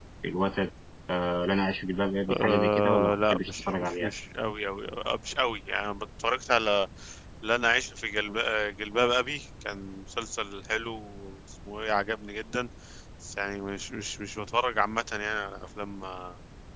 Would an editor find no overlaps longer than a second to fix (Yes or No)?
No